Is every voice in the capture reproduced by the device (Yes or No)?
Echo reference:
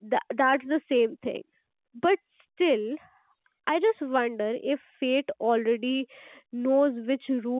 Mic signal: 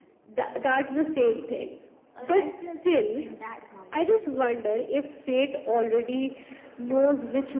No